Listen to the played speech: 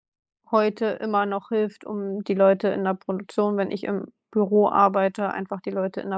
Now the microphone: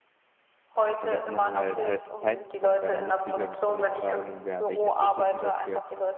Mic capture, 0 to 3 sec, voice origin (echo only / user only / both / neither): both